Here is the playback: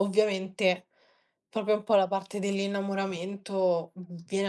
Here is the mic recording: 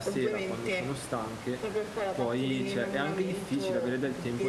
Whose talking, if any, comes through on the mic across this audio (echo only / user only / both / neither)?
both